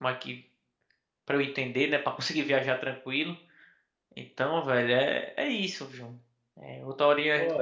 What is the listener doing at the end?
listening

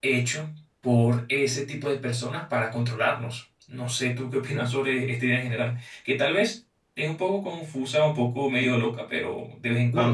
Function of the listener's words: taking over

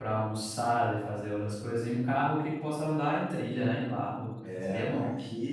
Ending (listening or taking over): taking over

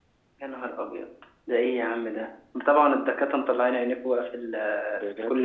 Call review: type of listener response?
taking over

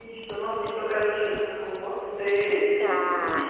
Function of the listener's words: listening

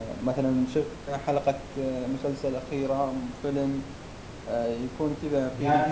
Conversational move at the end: taking over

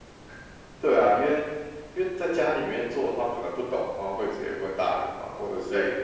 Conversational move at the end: listening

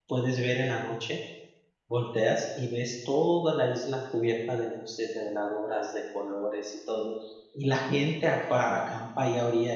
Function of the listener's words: listening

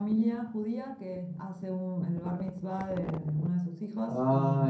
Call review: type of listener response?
listening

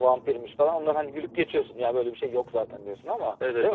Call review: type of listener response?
taking over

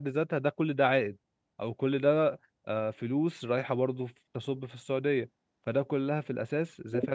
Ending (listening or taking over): listening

